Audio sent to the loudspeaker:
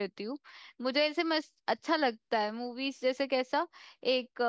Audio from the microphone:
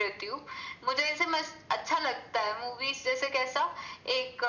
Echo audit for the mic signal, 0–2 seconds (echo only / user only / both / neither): echo only